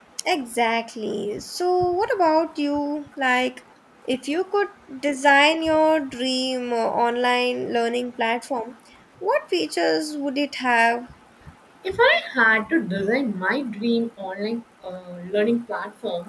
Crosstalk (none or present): none